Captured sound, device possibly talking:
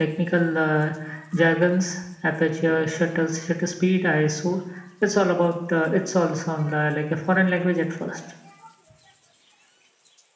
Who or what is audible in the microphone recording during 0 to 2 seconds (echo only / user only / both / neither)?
echo only